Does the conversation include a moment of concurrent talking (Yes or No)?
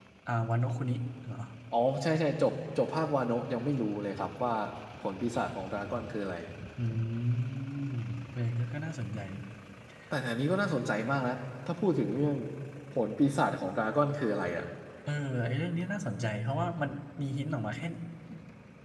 No